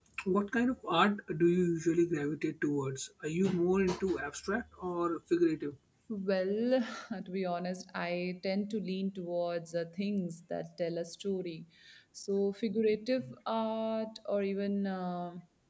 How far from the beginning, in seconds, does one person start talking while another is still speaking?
none

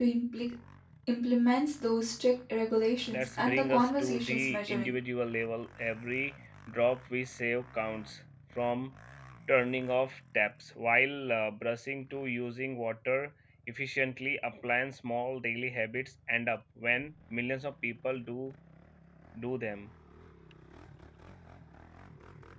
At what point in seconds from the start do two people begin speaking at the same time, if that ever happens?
3 s

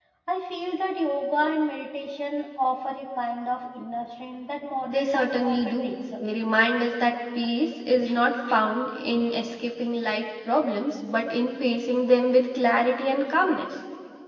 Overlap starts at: 5 s

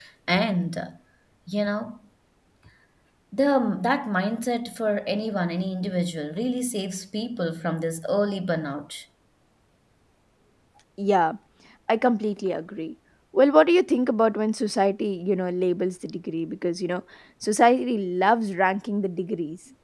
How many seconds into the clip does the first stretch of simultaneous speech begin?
none

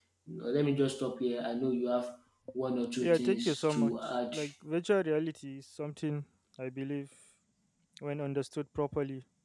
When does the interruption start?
3 s

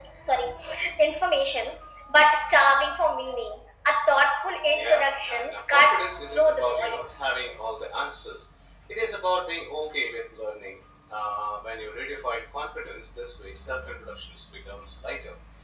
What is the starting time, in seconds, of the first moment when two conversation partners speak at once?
5 s

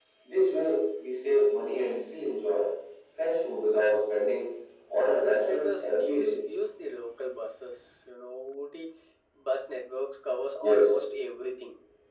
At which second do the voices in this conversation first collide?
5 s

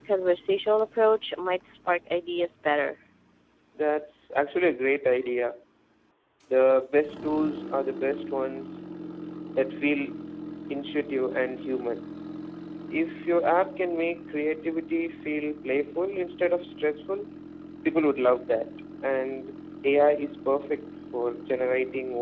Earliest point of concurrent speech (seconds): none

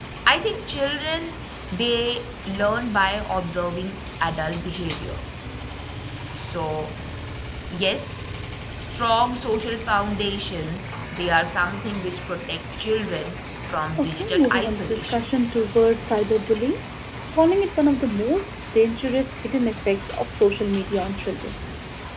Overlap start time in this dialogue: 14 s

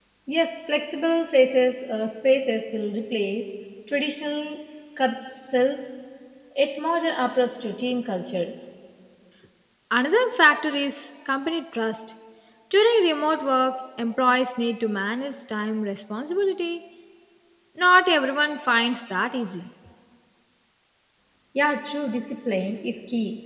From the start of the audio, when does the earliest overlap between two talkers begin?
none

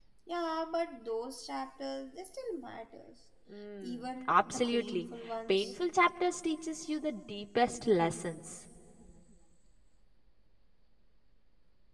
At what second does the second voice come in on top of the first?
4 s

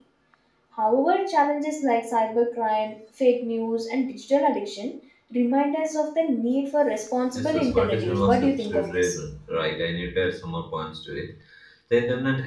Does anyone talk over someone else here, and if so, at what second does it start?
7 s

